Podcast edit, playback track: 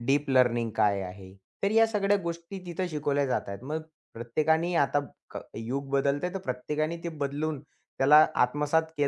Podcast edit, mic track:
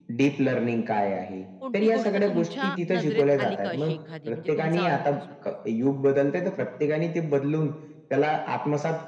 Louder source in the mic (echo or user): echo